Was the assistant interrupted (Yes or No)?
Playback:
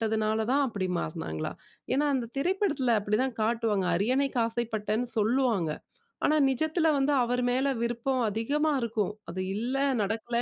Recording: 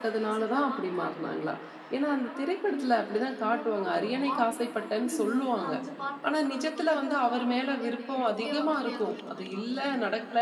Yes